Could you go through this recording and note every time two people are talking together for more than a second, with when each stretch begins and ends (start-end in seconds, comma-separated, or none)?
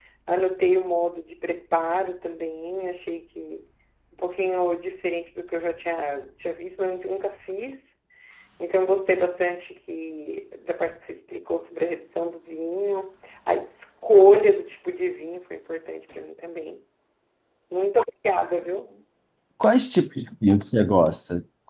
none